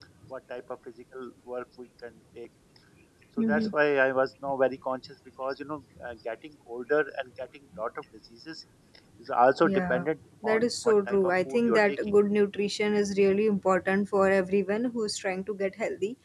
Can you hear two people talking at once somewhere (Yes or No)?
Yes